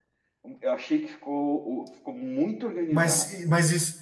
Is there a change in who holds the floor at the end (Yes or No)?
Yes